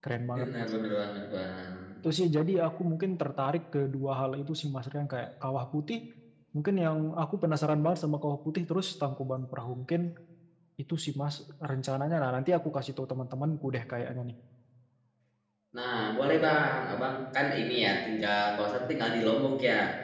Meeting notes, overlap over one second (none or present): none